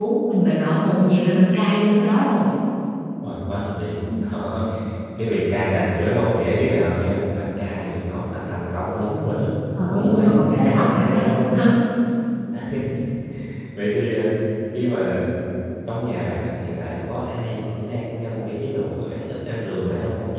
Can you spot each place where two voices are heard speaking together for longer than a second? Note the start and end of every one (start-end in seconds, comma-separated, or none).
9.9-11.2